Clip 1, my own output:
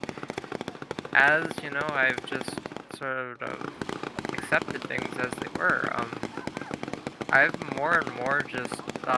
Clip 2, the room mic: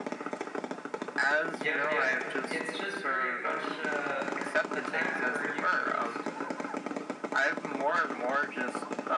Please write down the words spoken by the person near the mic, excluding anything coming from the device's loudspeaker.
yep, yep. It's just very much, uh, a time where you can just, uh

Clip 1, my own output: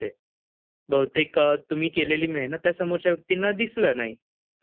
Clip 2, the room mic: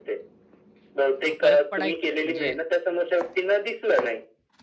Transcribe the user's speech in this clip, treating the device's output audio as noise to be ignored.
अ, फरक पडायचा. म्हणजे

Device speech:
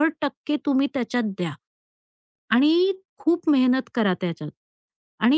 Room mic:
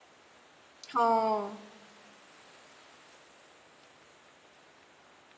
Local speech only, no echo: हो.

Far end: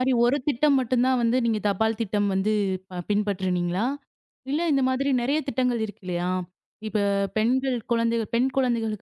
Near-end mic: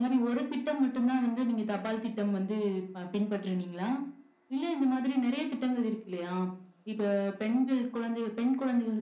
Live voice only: none

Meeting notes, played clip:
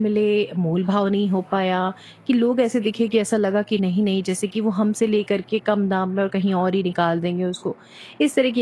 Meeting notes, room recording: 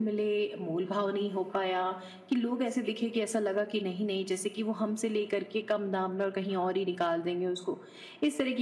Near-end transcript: none

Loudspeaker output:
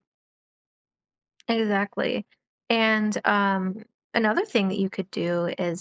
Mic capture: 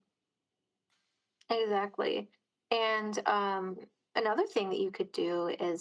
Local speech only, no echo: none

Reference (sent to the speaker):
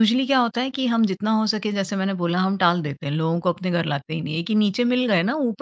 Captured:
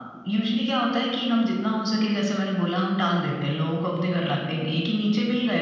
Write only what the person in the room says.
none

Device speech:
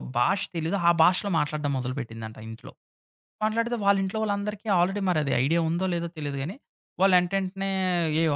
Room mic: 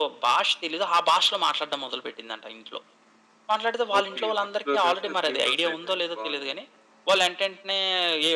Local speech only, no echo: ఓకే. ఫస్ట్ ఫ్లోర్ కాస్త 3 ఫ్లోర్స్ అయిపోయినాయి. బావుంది.

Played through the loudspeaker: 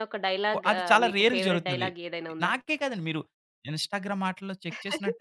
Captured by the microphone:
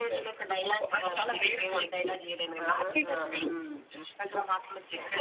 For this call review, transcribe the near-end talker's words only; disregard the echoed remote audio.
ఆహా! హ్మ్.

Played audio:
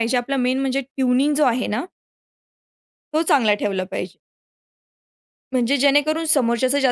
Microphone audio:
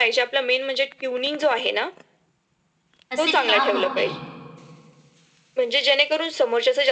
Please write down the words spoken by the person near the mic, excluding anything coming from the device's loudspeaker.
असे का होते हो?

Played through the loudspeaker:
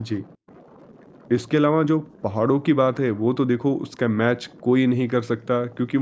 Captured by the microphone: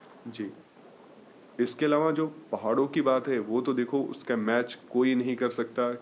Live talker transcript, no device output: none

